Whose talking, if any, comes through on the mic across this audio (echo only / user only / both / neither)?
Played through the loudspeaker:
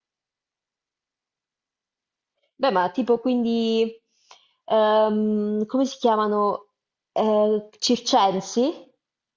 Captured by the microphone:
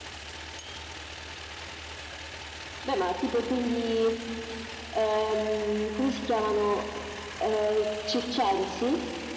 echo only